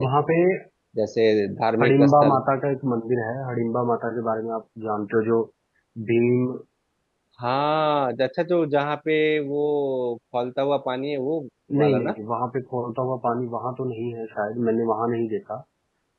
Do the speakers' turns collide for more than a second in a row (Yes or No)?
No